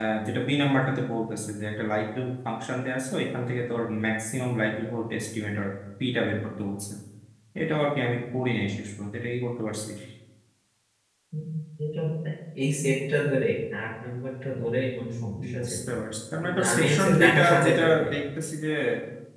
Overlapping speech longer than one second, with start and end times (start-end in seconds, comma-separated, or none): 16.4-18.0